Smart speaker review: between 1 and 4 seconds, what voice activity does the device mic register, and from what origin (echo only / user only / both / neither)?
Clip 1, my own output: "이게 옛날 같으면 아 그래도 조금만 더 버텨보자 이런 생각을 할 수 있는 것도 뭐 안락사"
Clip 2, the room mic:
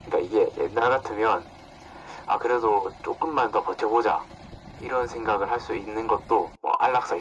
echo only